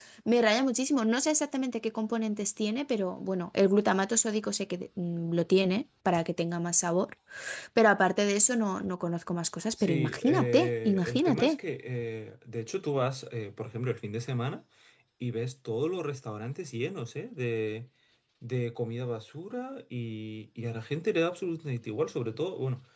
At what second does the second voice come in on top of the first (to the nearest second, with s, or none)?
10 s